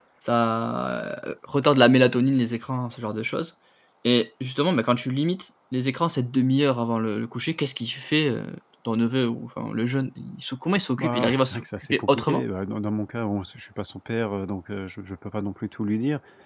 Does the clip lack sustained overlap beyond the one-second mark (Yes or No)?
No